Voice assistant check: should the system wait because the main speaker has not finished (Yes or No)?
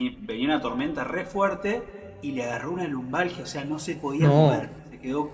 Yes